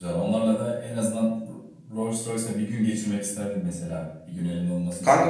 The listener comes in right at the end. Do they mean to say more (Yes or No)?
Yes